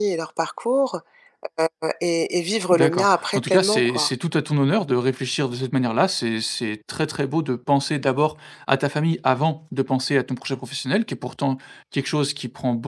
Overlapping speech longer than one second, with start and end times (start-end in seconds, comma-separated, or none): 2.7-4.1